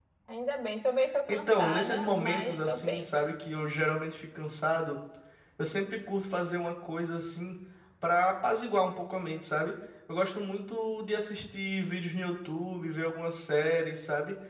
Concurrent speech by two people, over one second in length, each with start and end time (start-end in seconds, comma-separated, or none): 1.3-3.1